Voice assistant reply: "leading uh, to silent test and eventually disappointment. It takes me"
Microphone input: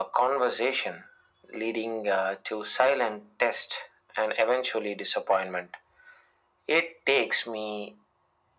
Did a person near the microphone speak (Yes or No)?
No